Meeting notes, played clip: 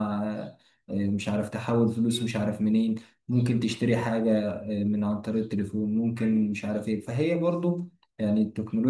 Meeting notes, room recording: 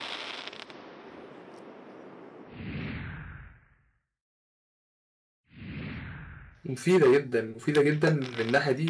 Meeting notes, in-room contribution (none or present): present